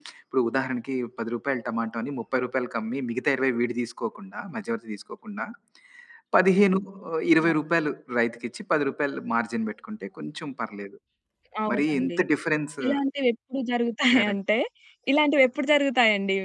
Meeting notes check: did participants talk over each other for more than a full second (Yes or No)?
No